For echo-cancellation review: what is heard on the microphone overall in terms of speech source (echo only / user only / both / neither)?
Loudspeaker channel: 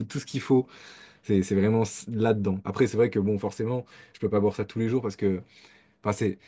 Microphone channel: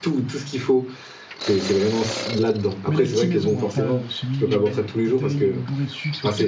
both